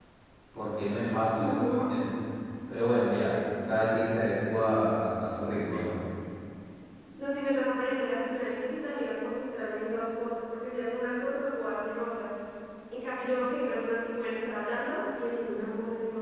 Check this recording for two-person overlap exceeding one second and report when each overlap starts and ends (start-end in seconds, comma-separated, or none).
none